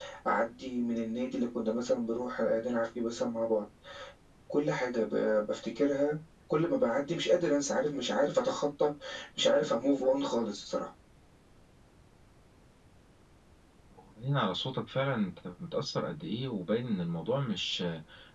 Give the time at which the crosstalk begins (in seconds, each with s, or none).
none